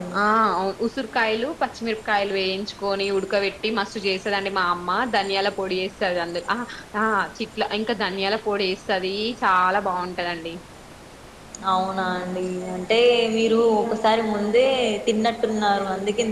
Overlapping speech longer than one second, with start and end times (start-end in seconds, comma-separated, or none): none